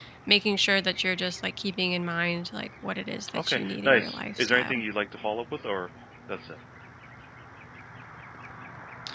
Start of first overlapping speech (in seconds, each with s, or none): 3.3 s